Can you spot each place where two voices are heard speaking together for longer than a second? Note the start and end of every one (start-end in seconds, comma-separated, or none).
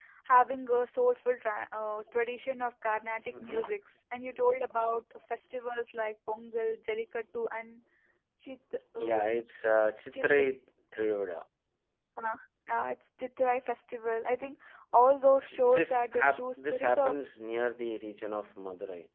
15.8-17.1